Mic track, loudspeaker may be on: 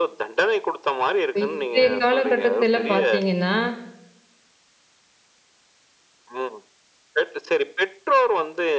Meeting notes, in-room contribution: present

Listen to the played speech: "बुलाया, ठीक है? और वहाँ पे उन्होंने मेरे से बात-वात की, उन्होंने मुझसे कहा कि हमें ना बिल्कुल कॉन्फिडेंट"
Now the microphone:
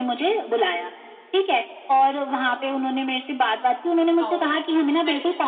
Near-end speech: present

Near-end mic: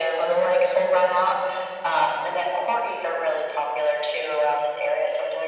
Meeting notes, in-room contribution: none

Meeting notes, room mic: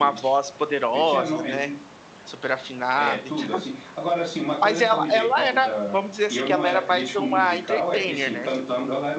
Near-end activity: present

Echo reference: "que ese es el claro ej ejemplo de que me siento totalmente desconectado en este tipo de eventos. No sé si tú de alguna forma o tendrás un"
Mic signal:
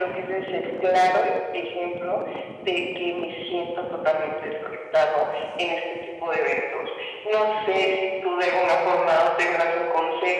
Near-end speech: none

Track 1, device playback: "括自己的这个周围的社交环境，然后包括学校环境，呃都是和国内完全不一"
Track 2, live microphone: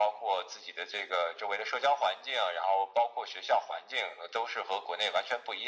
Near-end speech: none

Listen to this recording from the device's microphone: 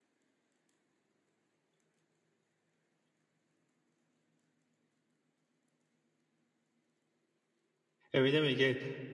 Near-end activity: present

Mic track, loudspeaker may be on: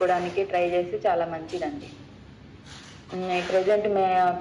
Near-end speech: none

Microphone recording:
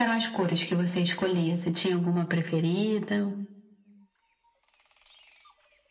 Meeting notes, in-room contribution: none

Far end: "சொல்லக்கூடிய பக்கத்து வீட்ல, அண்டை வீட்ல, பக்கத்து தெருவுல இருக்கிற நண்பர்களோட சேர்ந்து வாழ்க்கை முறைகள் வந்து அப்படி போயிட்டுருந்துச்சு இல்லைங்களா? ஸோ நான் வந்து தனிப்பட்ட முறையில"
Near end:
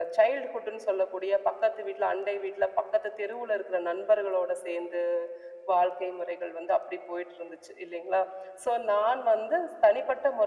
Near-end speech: none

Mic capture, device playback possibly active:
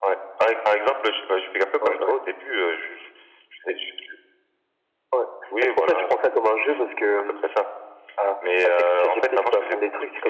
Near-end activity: none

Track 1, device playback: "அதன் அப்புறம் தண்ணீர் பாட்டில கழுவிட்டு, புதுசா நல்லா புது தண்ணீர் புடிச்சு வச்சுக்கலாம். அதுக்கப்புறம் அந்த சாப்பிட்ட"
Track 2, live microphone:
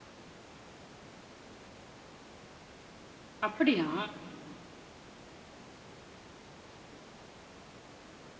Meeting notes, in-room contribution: present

